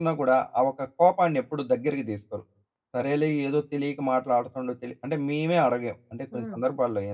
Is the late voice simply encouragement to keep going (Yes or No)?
Yes